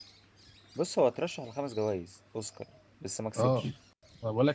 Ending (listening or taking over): taking over